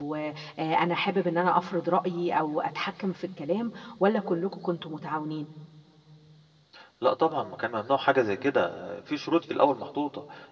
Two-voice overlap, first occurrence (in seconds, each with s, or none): none